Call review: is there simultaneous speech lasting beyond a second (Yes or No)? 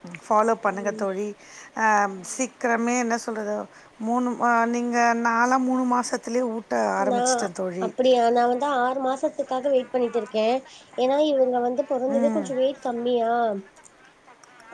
No